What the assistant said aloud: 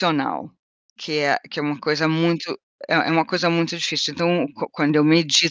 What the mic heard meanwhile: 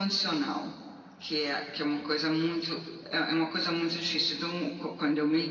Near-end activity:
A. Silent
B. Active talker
A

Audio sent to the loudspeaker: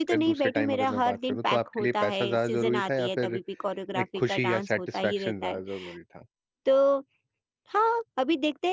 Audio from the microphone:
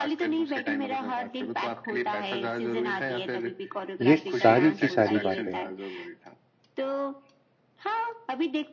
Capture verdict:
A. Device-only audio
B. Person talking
B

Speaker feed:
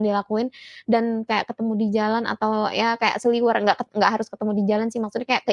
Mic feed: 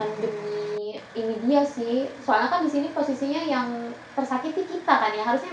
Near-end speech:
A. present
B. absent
A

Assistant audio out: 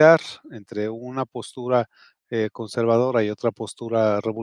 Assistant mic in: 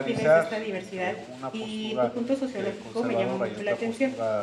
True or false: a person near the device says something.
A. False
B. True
B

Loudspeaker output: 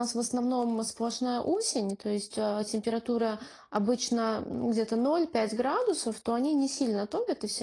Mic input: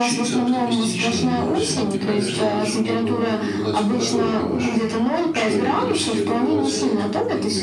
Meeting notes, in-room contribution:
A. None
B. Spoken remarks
B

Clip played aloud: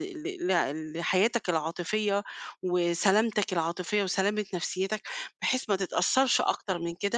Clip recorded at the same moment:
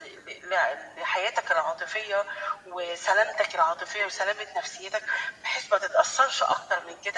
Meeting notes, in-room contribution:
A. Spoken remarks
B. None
B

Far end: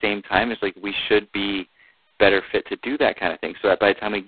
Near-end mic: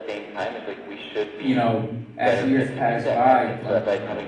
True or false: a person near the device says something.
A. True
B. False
A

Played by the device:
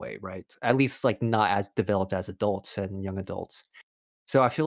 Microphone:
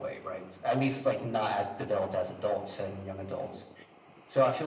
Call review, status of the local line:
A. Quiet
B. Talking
A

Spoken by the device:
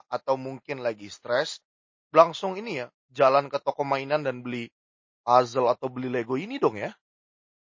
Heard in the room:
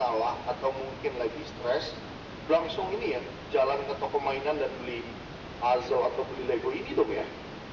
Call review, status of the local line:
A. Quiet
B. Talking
A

